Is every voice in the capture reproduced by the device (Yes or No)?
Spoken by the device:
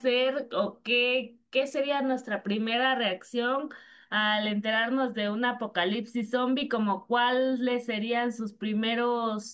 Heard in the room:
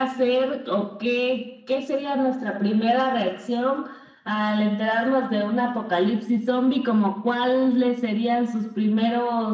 Yes